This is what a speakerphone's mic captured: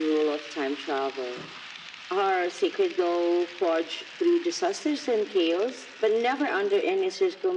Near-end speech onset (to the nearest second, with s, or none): none